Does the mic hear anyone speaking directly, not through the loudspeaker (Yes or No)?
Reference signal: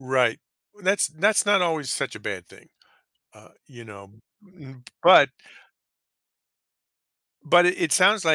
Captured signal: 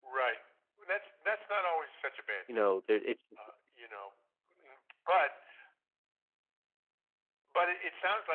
Yes